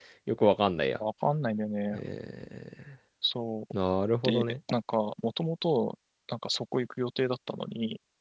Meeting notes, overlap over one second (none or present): none